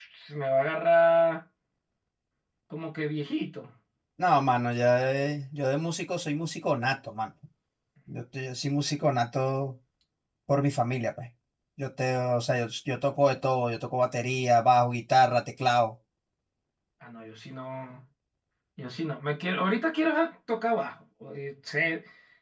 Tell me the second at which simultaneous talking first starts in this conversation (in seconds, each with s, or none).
none